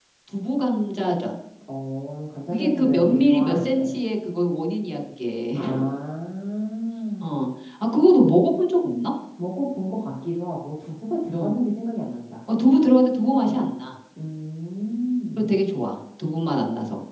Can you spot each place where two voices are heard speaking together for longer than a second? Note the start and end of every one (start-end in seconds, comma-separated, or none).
2.5-4.0